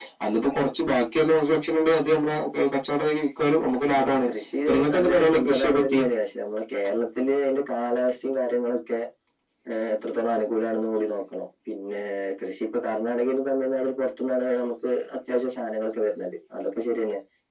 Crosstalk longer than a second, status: present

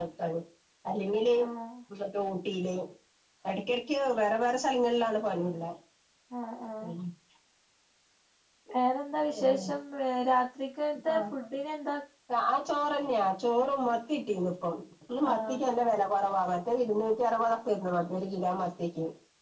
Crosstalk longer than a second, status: none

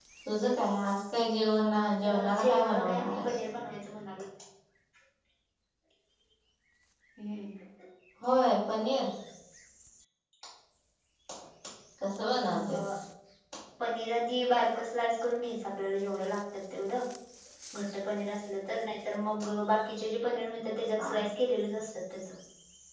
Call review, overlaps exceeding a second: present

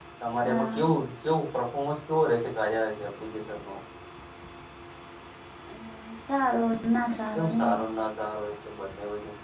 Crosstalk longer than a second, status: none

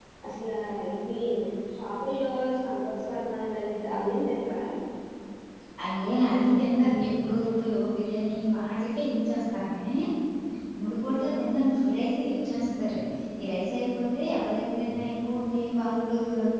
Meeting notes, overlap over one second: none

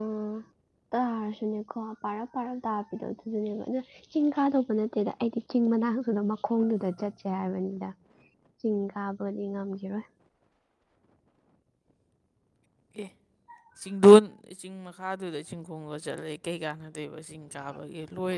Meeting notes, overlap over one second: none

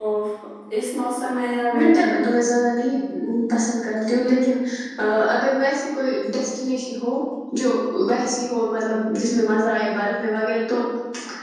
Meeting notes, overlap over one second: none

